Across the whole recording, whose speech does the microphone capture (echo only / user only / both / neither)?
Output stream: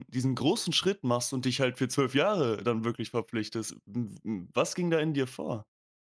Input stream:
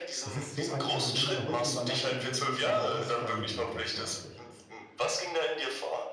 both